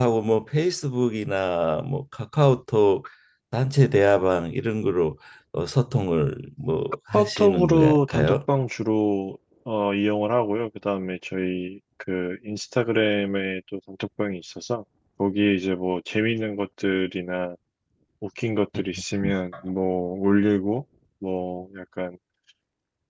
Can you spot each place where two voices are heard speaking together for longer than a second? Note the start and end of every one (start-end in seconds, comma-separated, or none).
7.1-8.4